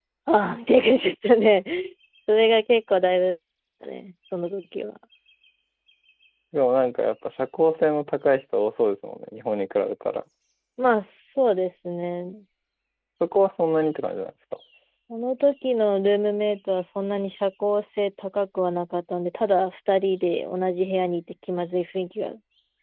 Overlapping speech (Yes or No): No